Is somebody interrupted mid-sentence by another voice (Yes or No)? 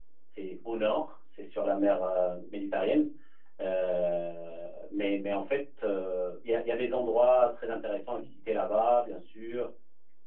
No